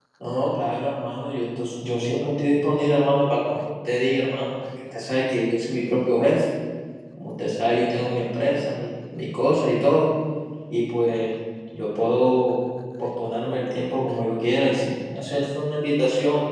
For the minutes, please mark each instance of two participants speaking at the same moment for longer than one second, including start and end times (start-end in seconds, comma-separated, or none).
none